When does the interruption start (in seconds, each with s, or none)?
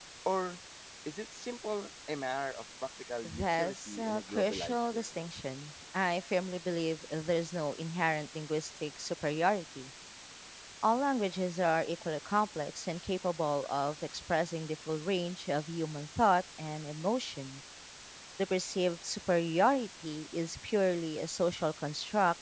3.2 s